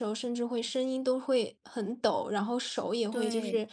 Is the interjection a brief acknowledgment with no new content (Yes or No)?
Yes